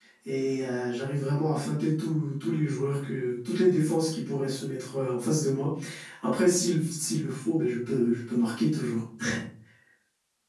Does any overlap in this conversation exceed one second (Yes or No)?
No